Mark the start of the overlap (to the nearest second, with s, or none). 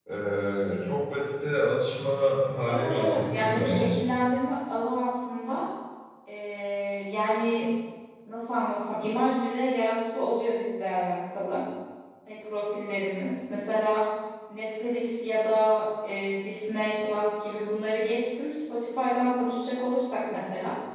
3 s